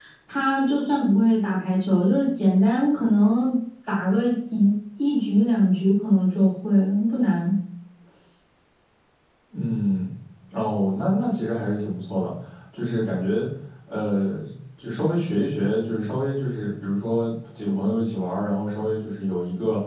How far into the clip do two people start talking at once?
none

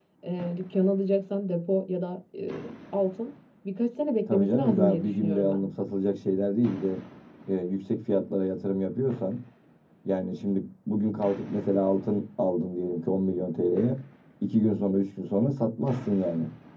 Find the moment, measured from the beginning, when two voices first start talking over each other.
4.3 s

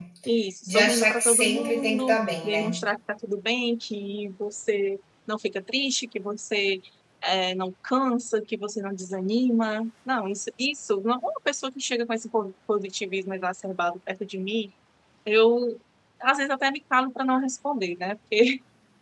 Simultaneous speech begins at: 0.7 s

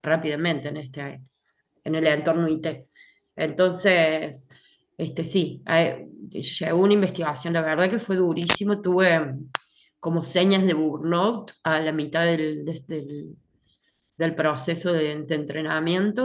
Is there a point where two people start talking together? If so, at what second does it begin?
none

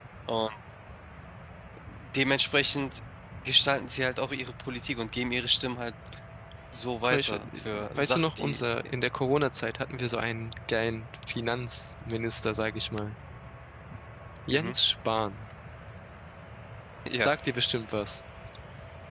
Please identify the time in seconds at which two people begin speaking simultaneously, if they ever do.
7.0 s

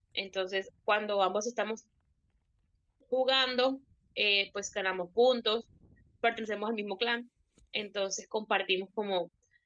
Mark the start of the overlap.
none

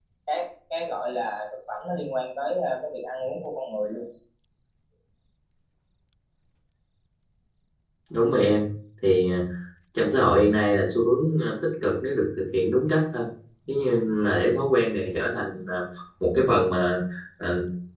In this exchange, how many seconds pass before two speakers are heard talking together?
none

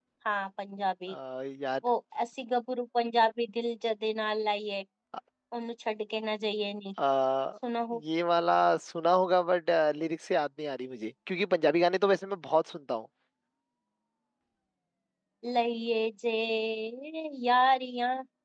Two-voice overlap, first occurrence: none

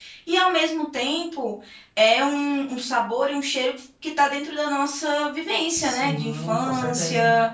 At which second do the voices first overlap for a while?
5.8 s

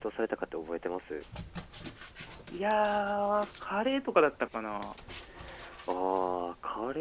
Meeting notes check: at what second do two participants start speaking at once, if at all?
none

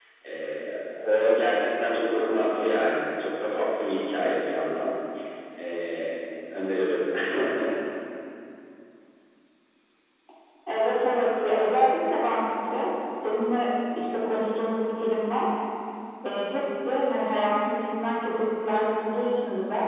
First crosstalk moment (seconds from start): none

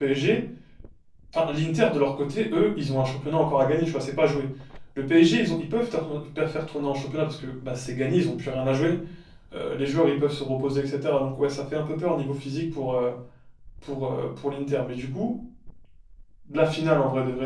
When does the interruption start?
none

